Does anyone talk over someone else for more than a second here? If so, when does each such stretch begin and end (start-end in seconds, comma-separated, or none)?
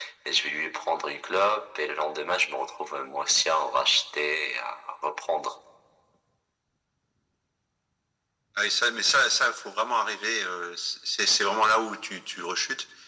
none